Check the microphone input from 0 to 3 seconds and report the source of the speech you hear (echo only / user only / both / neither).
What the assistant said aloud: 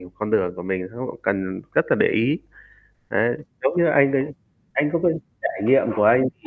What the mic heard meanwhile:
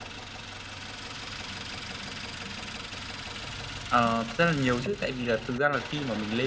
neither